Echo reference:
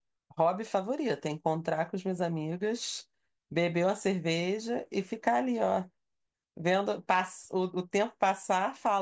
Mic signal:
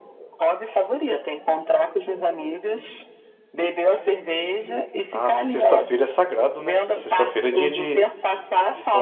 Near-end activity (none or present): present